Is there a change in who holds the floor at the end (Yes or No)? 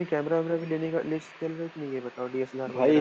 Yes